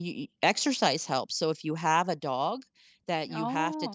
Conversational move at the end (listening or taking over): listening